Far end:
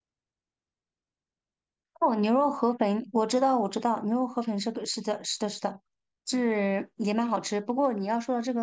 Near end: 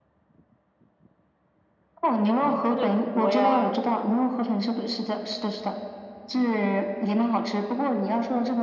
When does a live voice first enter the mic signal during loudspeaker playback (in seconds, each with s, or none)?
2.3 s